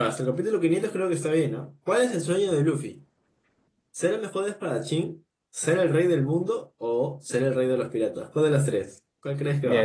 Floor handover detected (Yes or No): Yes